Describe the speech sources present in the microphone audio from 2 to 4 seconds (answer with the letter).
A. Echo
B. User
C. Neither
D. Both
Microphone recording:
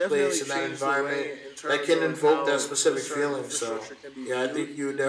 D